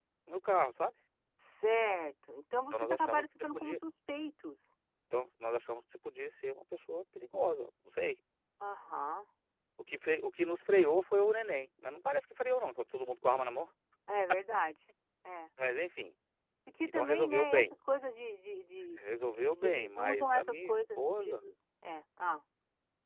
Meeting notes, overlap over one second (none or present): present